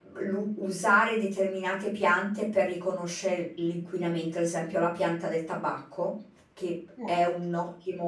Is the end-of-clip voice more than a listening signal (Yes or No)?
No